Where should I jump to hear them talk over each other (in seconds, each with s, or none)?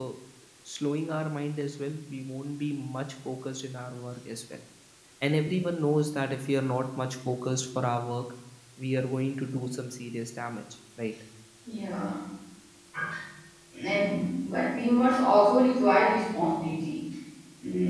none